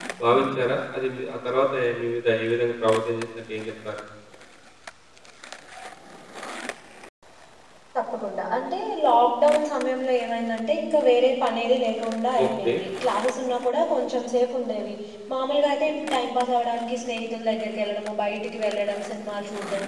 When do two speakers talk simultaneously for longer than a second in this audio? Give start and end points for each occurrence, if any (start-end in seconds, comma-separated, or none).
none